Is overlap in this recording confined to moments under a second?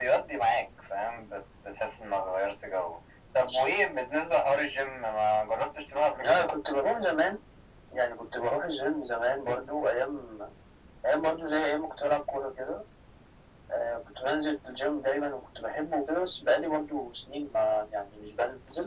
Yes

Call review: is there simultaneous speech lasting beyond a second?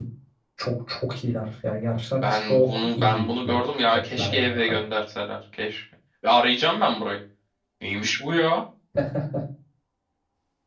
Yes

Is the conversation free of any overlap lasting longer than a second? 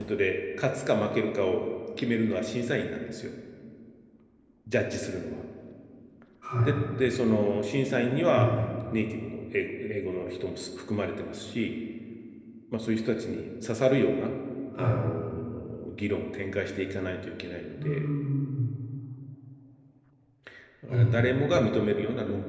Yes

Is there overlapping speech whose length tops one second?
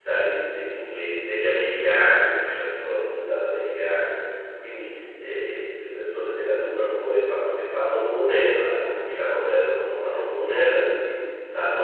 No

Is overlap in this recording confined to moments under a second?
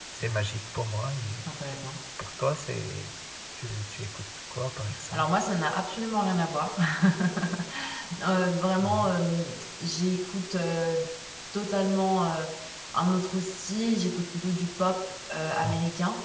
Yes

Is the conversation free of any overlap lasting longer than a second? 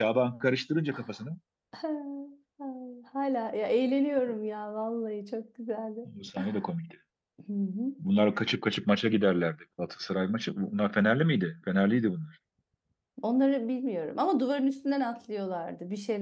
Yes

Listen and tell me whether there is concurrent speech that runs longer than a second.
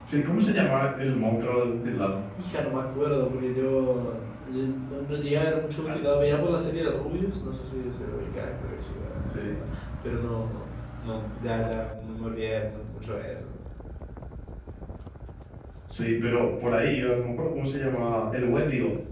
No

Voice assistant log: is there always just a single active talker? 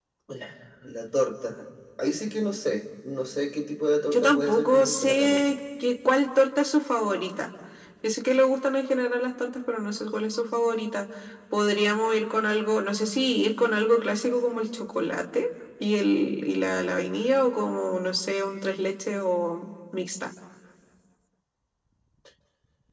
No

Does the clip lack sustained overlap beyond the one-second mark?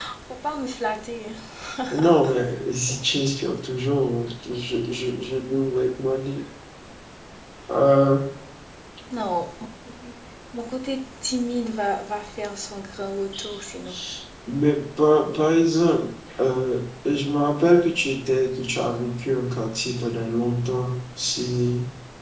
Yes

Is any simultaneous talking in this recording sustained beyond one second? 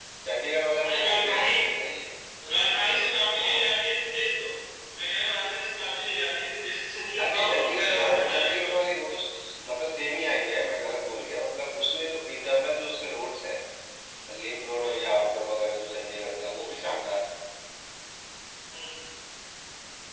Yes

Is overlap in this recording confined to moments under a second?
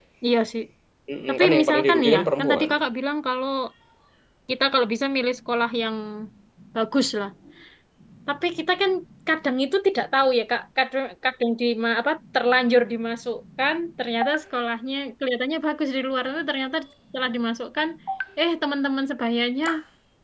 No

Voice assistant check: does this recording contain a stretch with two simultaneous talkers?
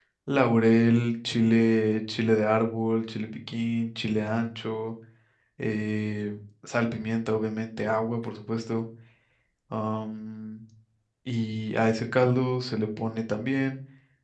No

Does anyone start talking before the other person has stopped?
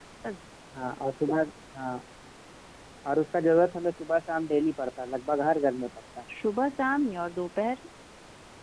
No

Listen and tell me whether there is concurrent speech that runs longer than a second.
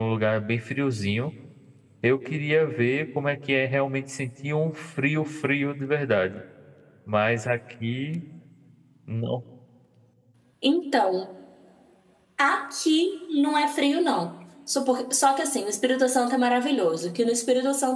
No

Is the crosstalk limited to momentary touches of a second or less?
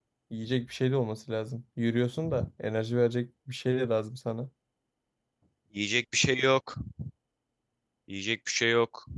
Yes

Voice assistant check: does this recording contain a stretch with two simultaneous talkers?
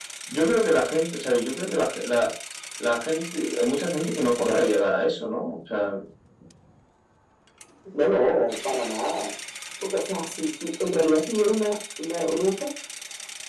No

